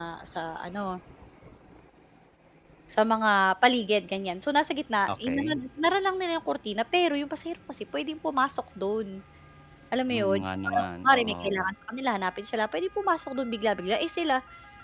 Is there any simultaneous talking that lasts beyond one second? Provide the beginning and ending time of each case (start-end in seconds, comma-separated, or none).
10.1-11.7